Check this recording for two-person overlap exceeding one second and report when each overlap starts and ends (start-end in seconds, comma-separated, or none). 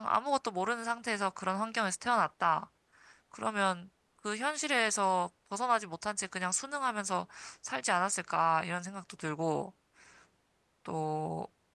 none